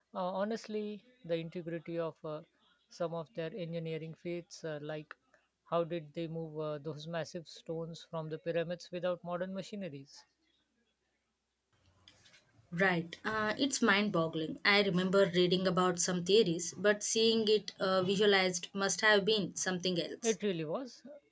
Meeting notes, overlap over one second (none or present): none